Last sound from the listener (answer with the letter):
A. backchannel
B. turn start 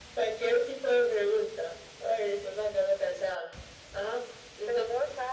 B